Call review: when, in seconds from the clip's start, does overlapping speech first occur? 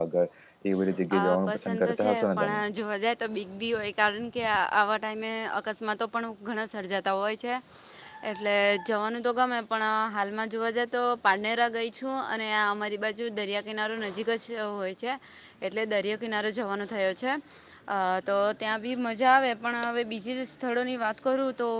1.1 s

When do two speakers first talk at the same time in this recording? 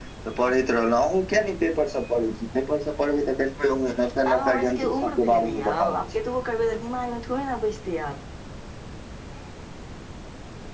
4.2 s

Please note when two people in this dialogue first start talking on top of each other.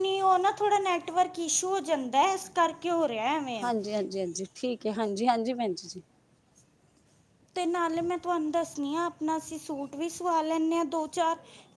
none

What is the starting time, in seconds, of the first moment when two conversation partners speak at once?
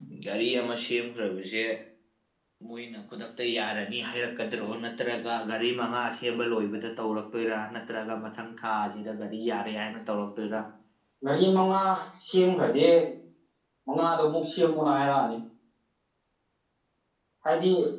none

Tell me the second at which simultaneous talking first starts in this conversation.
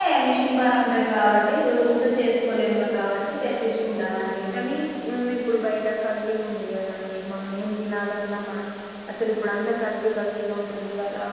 none

